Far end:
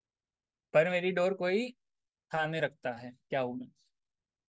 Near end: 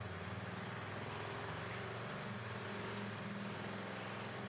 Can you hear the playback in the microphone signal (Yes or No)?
No